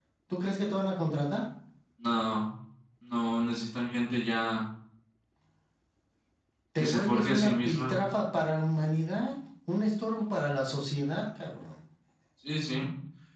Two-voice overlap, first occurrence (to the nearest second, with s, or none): 7 s